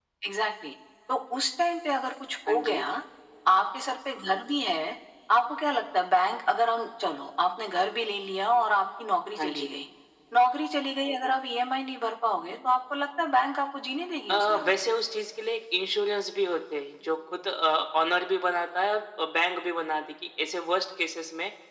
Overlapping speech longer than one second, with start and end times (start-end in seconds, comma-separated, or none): none